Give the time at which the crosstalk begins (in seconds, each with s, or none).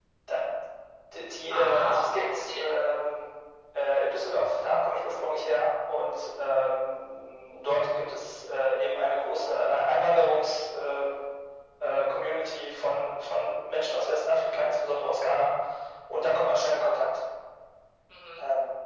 1.5 s